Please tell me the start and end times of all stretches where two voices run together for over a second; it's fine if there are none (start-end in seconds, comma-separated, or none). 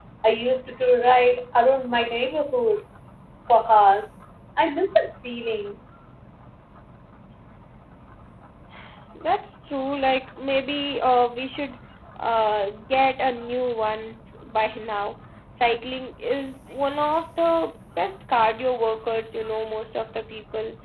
none